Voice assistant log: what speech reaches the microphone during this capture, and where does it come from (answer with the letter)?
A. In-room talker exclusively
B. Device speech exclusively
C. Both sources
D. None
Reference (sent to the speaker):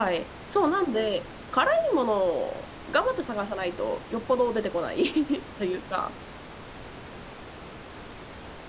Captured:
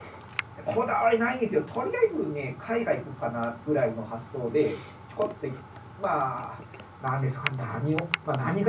A